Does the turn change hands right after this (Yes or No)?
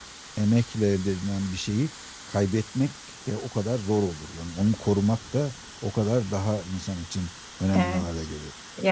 Yes